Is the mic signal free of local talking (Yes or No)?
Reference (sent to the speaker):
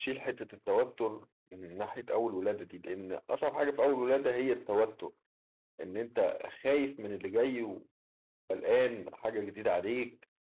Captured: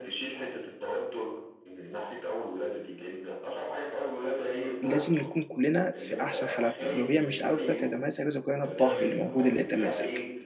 No